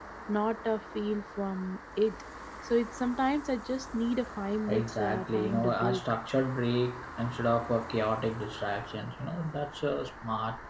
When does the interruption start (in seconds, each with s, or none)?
4.7 s